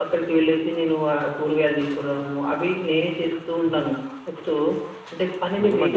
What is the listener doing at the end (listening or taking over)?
taking over